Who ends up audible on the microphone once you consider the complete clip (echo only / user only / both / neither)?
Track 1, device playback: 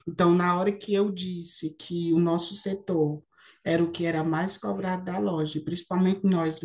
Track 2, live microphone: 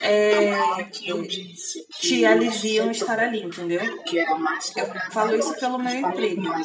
both